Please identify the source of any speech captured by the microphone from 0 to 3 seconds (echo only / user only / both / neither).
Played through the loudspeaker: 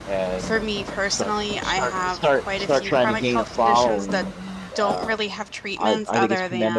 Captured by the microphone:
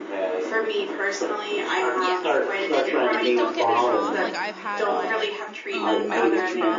both